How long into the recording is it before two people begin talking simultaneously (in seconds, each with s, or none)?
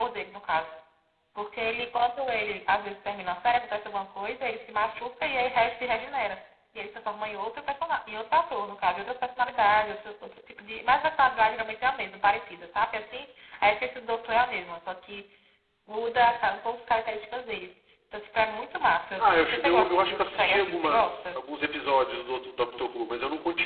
19.2 s